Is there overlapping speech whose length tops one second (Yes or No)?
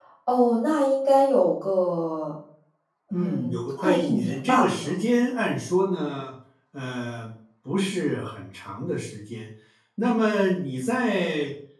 Yes